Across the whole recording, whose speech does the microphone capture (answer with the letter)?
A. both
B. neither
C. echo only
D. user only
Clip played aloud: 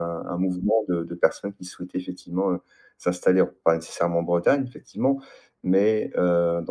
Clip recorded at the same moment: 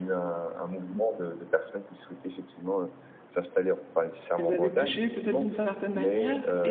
A